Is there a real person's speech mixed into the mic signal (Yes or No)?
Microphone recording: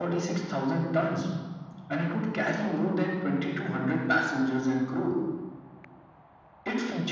No